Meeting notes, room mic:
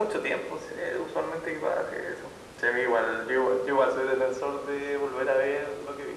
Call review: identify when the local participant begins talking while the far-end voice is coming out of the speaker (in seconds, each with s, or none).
none